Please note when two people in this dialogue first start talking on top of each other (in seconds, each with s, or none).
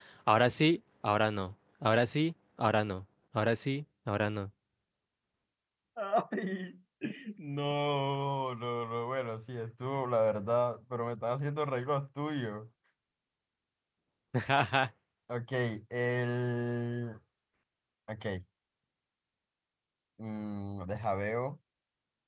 none